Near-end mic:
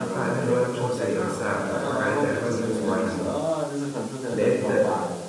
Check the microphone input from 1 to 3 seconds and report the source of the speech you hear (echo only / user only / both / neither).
both